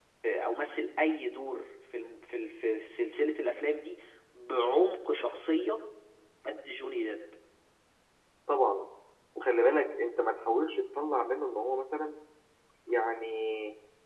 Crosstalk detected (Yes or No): No